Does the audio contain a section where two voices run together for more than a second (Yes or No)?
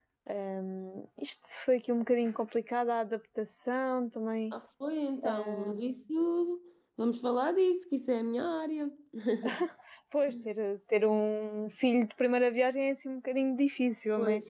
No